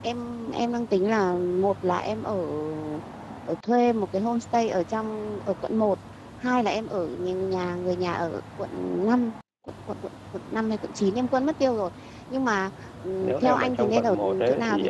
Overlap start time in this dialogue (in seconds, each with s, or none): 13.2 s